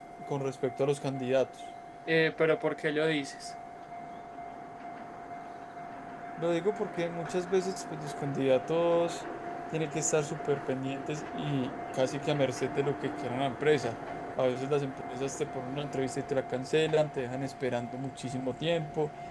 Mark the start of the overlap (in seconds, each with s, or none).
none